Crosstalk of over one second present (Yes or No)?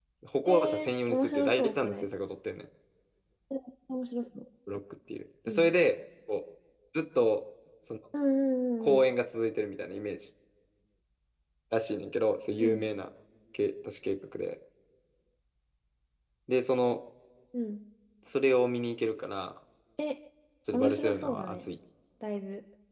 Yes